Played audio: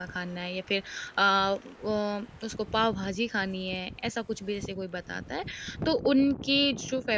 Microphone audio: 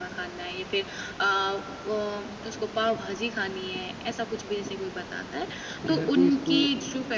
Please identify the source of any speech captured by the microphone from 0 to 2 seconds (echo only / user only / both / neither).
echo only